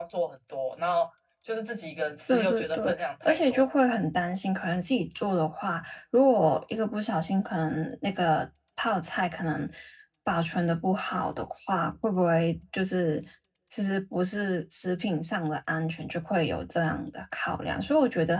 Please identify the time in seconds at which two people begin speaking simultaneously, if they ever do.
2.3 s

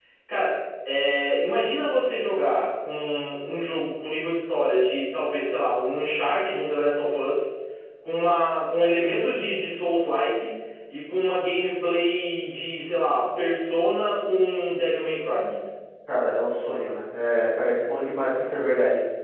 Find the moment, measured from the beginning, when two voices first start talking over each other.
none

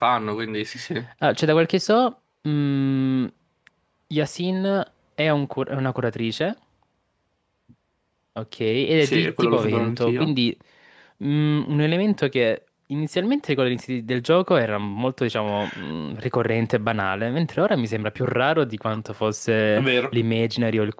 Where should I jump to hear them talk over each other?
9.0 s

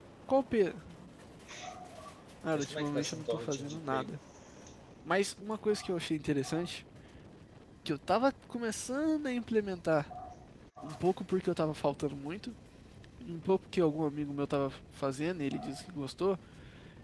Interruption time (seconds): 2.5 s

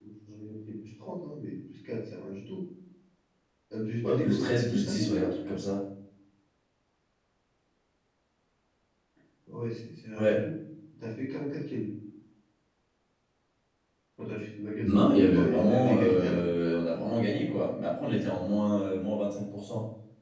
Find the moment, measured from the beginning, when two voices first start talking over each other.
4.1 s

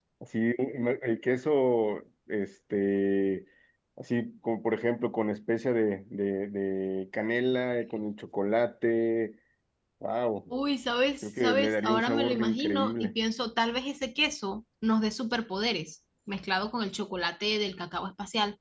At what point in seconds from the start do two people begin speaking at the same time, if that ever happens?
11.2 s

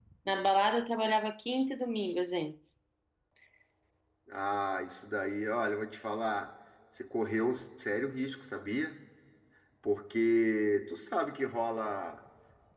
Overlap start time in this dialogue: none

